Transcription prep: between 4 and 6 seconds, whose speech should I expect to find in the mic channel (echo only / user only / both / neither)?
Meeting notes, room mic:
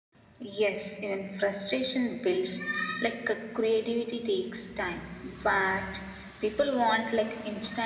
echo only